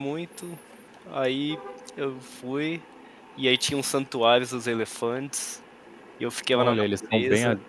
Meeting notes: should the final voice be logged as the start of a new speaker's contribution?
Yes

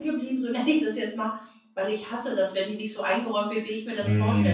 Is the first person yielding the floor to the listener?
No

